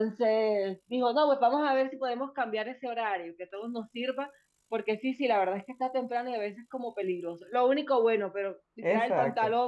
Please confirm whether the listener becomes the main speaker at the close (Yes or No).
No